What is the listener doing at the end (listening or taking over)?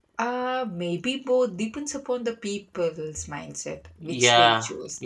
taking over